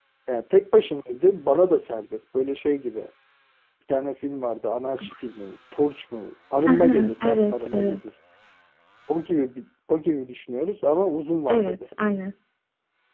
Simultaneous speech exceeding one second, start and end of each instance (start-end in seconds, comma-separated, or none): 6.7-8.0